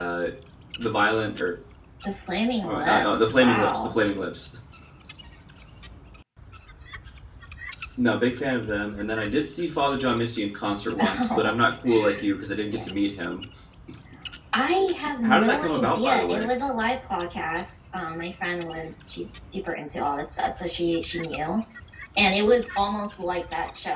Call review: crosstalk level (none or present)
present